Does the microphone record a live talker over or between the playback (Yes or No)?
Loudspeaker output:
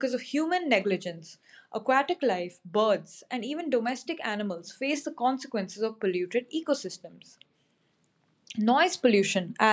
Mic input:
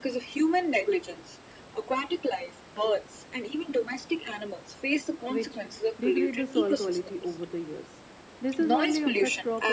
Yes